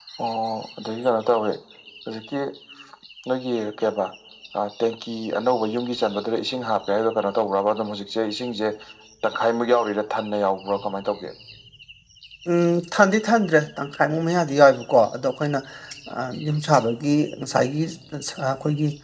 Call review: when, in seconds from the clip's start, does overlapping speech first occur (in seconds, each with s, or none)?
none